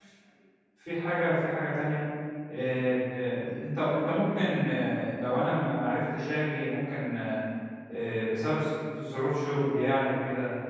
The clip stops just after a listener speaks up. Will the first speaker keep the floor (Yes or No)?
Yes